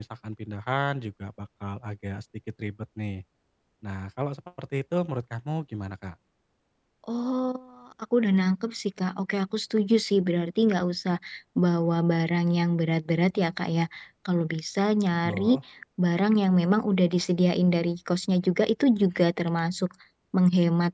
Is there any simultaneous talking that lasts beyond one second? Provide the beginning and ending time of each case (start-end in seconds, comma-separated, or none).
none